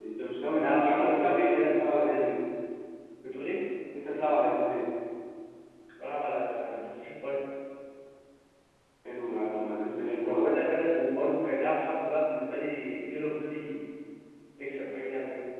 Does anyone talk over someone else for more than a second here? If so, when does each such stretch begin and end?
0.5-2.2

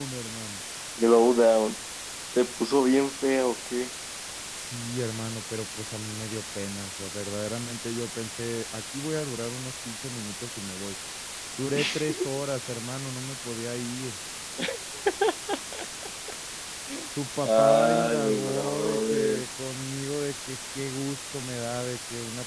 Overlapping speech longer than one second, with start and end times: 17.4-19.4

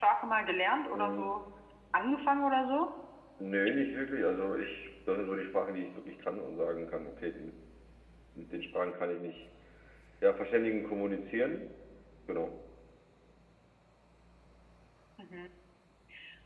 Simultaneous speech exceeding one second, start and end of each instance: none

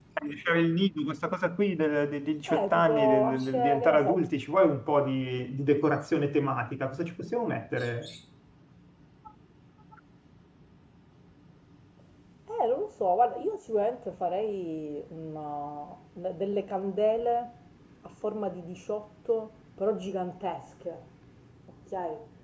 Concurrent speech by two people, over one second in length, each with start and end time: 2.5-4.3

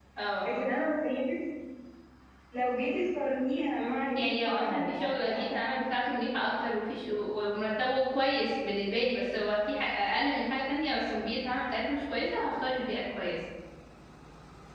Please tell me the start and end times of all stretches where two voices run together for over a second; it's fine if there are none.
4.2-6.0

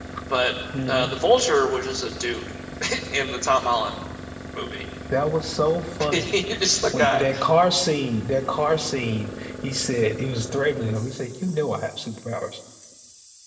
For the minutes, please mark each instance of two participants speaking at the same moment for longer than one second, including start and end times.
none

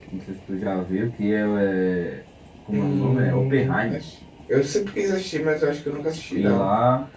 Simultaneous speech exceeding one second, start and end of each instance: 2.7-4.0

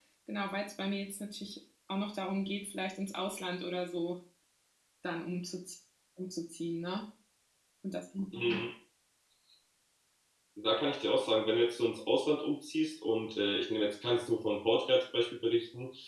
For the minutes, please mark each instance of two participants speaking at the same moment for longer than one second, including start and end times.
none

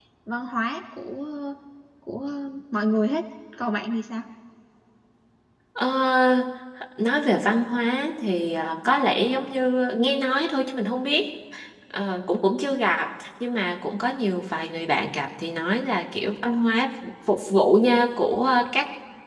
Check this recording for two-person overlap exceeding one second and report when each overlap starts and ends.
none

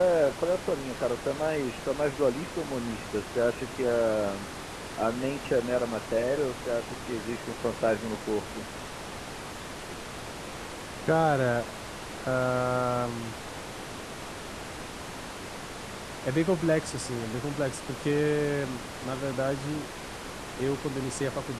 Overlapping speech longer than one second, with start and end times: none

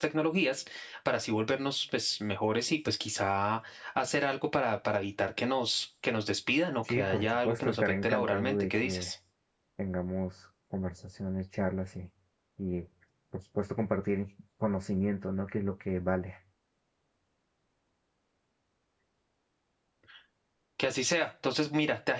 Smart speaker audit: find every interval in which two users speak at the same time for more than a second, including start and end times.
6.9-9.1

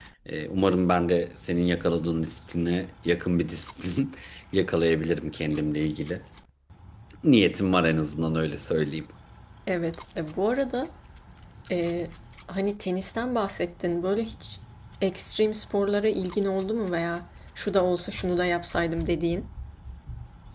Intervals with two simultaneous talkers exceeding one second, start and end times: none

